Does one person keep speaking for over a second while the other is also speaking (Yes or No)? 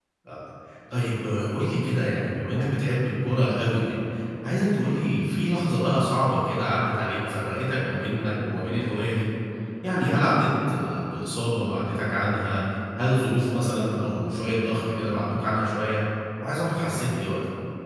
No